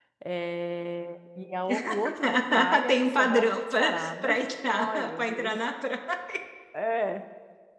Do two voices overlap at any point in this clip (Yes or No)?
Yes